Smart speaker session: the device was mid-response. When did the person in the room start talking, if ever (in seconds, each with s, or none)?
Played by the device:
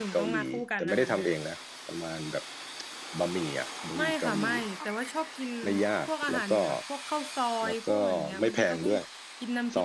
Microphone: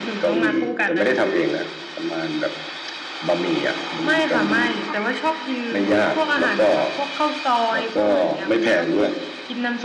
none